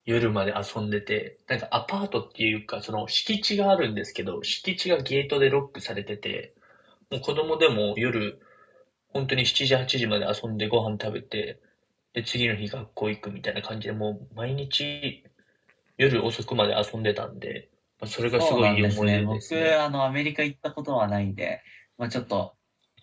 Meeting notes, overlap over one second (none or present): present